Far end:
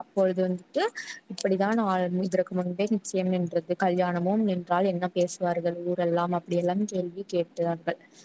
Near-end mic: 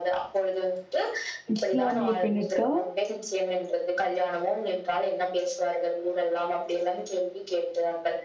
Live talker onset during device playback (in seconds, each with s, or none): 1.6 s